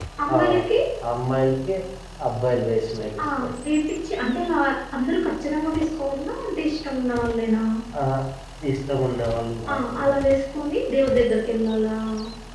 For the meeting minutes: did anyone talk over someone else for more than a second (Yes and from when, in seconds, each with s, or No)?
No